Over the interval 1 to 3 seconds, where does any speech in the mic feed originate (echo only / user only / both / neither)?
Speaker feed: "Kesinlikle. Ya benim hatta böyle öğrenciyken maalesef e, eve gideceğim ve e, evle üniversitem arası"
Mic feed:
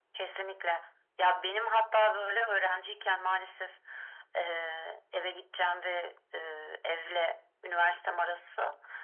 echo only